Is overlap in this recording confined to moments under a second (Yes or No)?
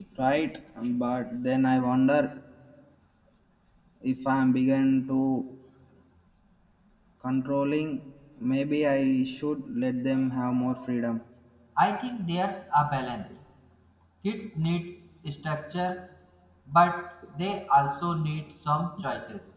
Yes